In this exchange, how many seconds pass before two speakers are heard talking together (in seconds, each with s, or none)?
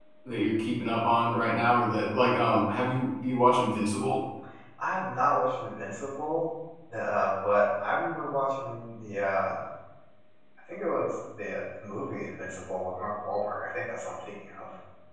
none